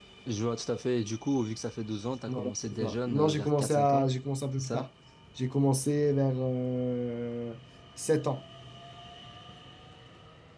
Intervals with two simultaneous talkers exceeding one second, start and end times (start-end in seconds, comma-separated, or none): 2.3-4.1